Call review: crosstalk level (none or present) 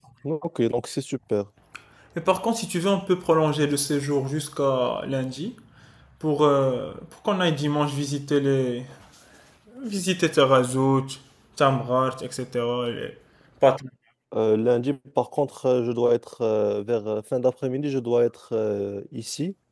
none